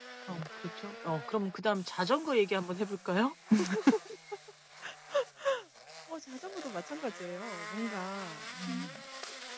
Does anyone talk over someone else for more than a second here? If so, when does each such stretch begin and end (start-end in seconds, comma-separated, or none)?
none